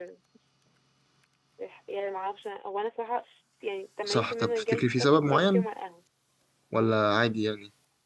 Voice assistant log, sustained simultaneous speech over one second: present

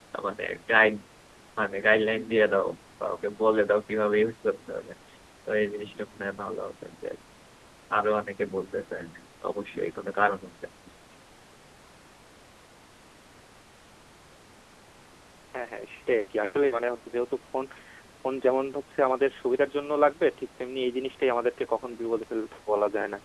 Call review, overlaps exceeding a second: none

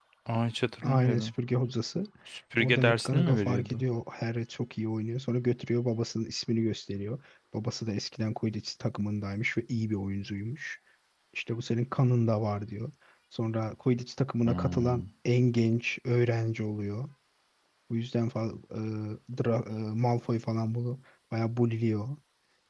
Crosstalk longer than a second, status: present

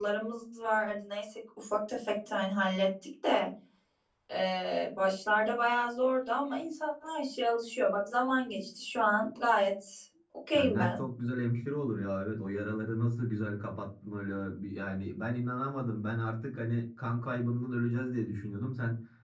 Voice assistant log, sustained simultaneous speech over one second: none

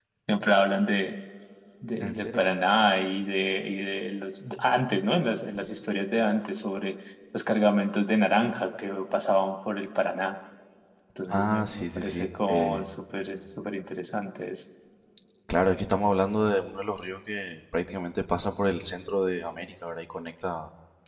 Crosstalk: present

